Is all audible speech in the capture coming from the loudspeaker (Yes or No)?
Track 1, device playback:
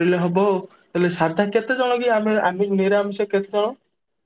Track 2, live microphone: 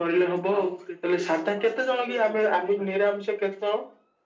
No